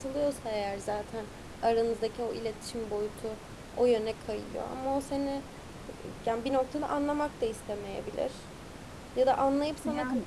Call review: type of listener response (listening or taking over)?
listening